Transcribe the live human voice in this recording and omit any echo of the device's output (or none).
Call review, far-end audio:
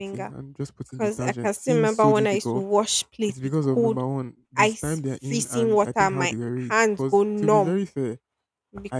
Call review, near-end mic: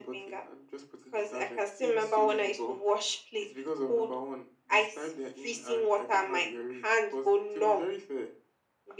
none